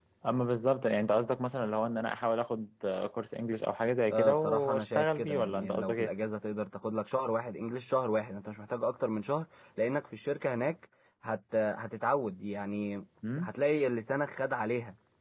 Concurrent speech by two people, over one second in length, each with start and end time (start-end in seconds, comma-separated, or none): 4.1-6.1